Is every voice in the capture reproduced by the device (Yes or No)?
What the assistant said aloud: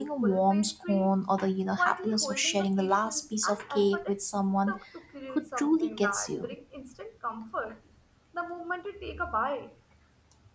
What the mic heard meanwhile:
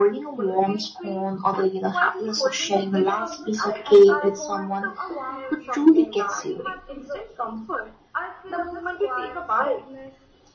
No